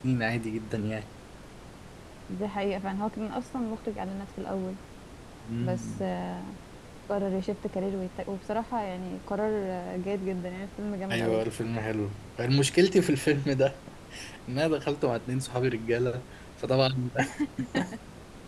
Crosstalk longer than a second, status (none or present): none